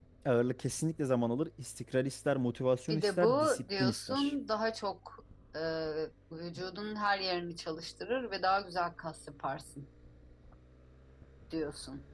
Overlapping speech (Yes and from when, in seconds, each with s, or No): Yes, from 2.9 s